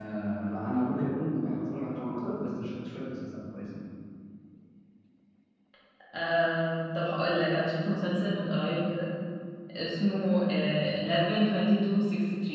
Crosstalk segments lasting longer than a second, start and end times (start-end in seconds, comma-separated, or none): none